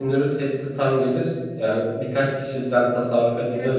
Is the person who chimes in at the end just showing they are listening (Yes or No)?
Yes